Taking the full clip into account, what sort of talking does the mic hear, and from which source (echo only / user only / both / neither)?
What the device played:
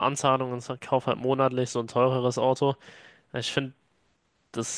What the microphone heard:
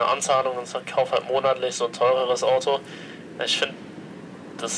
echo only